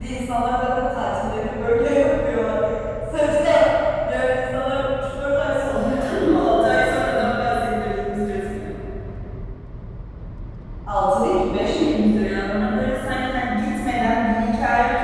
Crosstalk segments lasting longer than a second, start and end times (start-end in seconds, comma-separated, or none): 5.6-7.0